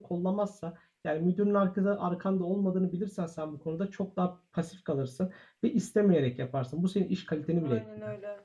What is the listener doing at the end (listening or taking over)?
taking over